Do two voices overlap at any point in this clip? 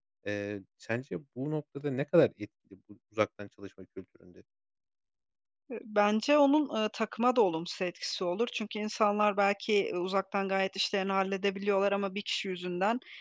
No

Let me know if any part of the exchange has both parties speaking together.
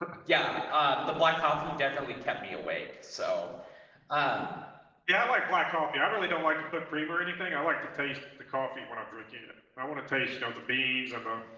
No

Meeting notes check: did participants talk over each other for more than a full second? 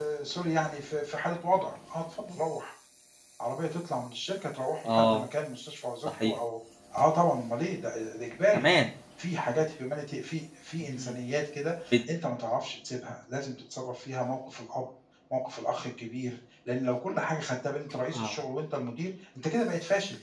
No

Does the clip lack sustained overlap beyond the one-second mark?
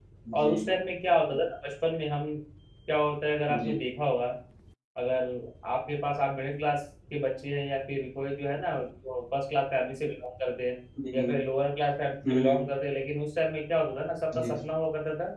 Yes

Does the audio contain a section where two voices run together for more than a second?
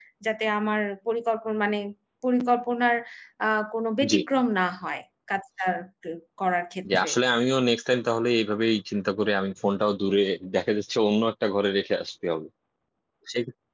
No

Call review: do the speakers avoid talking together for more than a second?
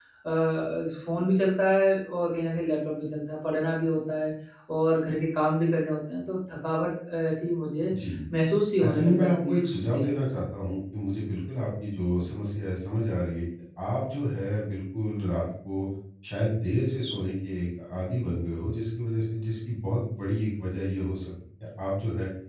No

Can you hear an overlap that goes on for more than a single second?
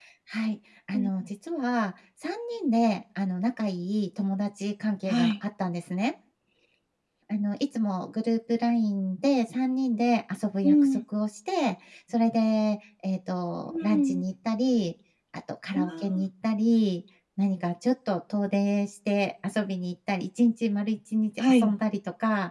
No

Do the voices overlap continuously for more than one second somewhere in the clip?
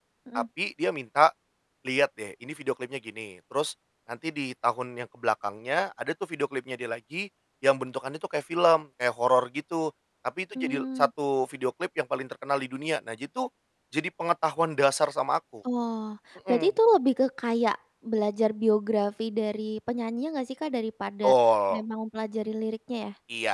No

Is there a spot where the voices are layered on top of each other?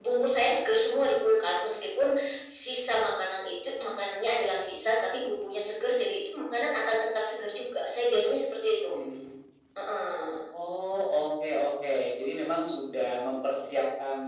No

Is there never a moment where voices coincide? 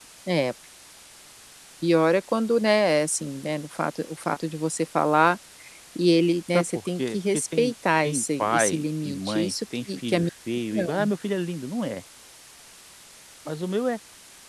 No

